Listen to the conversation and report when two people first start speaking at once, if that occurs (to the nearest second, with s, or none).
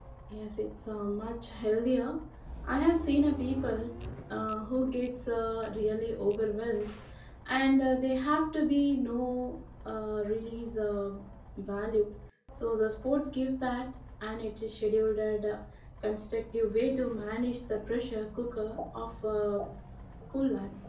none